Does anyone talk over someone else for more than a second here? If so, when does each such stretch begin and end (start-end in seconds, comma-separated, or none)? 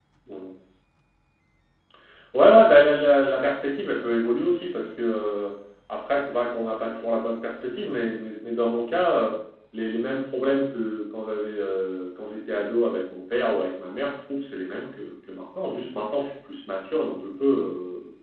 none